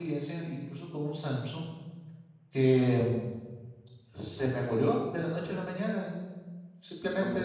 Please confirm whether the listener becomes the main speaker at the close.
No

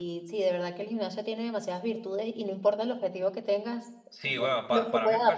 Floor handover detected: Yes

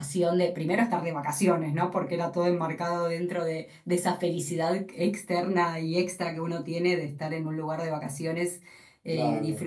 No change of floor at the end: Yes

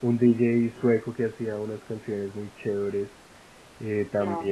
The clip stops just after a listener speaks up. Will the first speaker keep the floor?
Yes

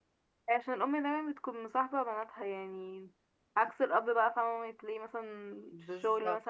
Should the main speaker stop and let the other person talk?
No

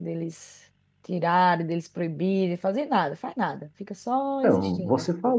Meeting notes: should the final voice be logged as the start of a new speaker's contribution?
Yes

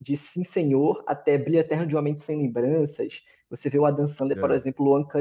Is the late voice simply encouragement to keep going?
Yes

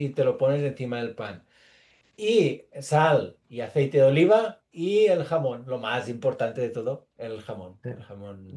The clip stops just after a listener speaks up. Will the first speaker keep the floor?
No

